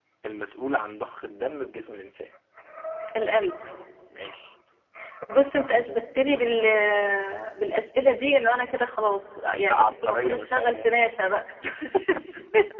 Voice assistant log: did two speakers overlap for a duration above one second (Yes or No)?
Yes